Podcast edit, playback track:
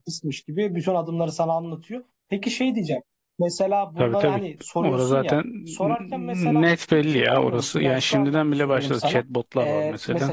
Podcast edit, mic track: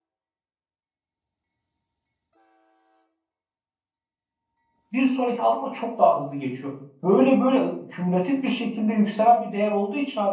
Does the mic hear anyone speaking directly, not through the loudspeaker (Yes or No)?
Yes